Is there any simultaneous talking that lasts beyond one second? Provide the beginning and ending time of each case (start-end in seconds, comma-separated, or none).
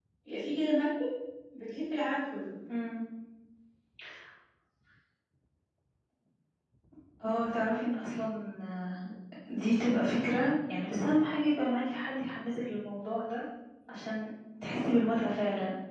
none